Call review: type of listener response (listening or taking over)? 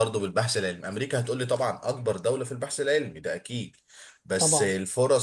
listening